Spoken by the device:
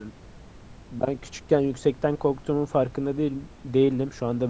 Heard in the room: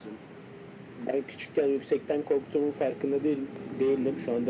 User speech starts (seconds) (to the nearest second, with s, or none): none